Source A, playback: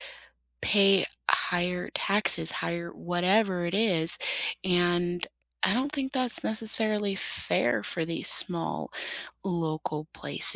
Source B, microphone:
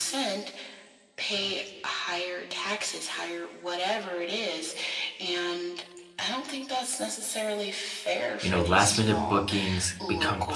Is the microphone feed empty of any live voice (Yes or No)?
No